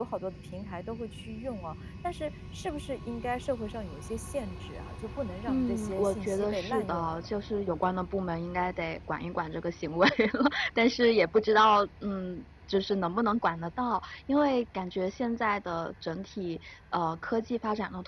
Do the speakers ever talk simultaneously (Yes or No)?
Yes